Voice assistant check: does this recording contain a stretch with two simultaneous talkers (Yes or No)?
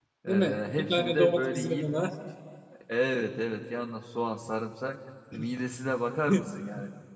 Yes